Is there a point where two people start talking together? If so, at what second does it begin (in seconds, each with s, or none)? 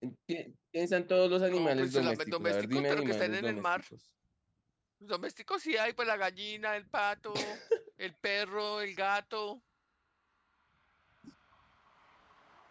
1.5 s